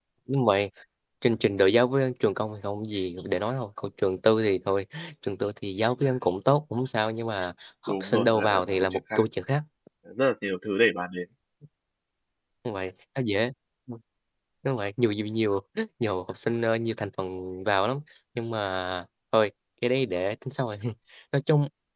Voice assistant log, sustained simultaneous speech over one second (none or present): present